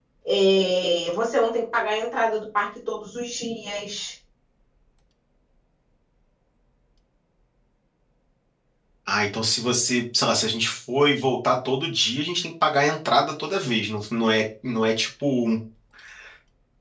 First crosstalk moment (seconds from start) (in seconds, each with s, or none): none